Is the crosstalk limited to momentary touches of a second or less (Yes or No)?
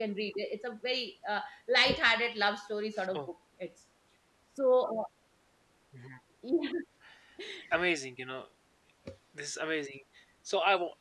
Yes